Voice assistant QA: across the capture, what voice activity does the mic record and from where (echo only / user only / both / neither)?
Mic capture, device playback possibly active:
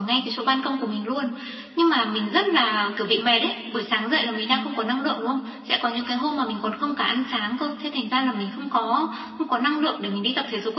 echo only